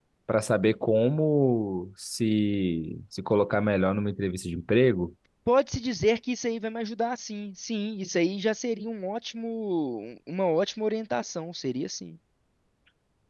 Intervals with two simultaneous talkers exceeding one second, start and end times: none

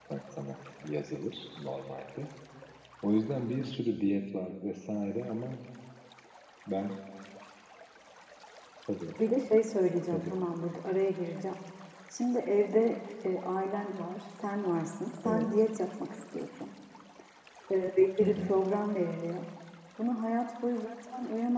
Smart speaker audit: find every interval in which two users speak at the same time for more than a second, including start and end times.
none

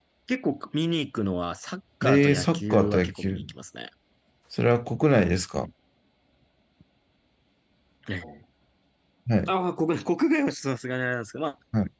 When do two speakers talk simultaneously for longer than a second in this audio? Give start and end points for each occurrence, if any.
2.0-3.4

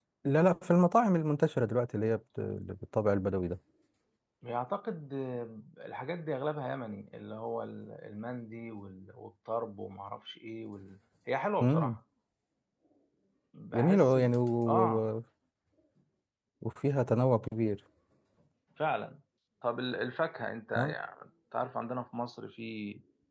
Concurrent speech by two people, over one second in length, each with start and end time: none

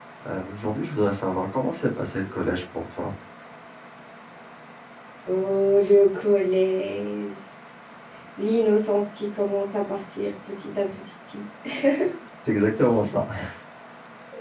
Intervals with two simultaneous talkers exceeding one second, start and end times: none

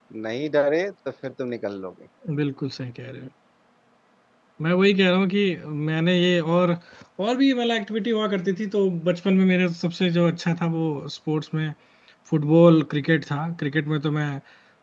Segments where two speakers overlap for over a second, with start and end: none

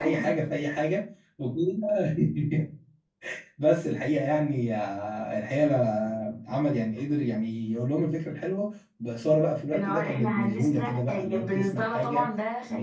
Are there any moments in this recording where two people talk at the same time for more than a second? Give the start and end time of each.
9.7-12.3

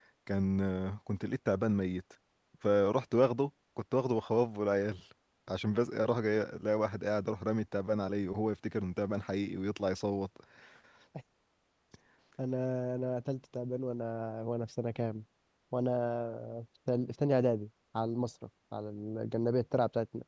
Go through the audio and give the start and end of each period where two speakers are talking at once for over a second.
none

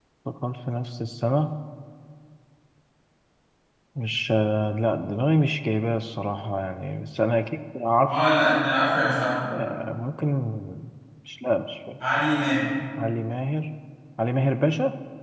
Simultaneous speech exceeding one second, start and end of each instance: none

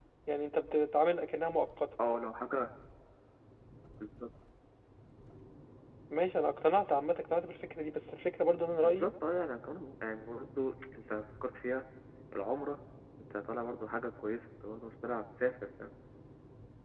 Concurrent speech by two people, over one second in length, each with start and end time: none

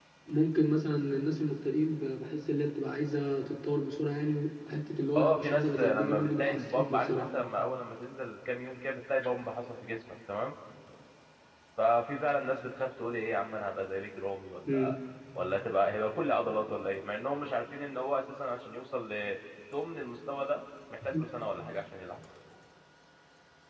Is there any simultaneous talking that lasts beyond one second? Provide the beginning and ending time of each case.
5.2-7.3

